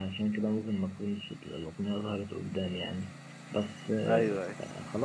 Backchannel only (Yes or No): Yes